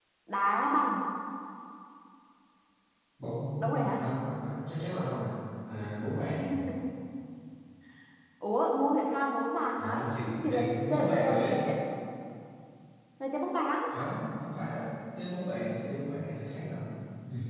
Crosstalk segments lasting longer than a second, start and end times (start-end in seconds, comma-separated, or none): 10.4-11.6